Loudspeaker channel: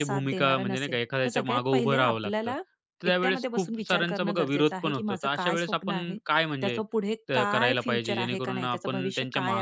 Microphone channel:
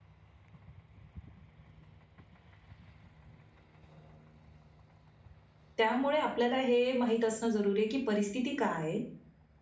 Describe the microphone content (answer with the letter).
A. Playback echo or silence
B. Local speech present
B